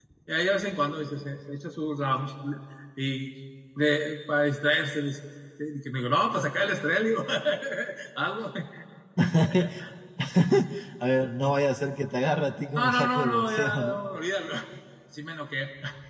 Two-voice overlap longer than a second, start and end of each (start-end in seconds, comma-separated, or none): 12.8-14.0